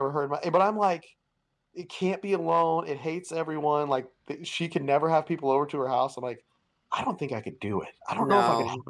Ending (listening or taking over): listening